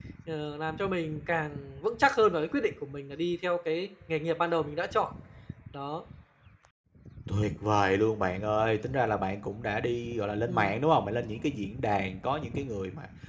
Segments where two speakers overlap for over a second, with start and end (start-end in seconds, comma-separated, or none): none